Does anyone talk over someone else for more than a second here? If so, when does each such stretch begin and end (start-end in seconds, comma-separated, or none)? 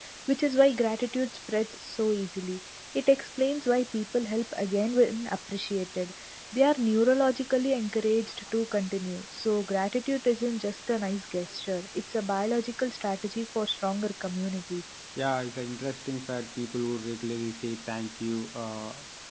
none